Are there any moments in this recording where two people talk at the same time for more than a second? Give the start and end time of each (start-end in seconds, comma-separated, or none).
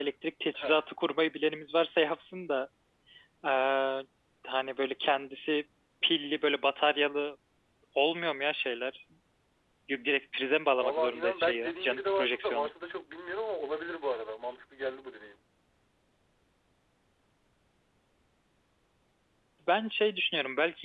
10.8-12.7